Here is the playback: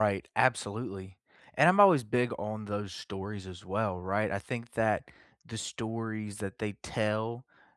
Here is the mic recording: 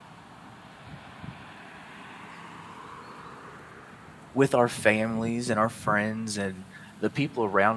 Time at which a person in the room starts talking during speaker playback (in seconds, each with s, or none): 4.3 s